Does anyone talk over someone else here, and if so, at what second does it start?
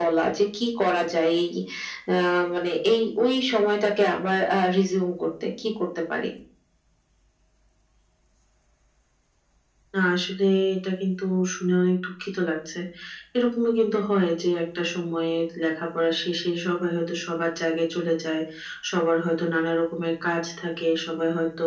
none

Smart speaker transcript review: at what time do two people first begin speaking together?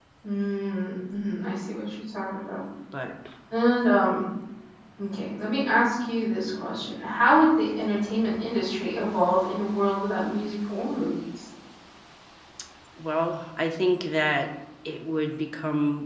none

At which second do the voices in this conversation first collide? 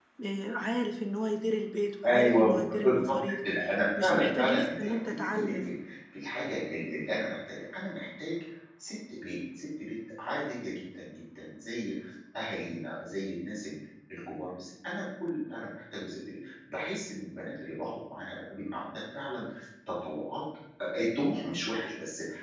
2 s

